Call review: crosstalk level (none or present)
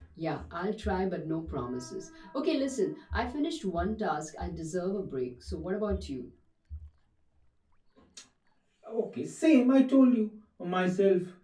none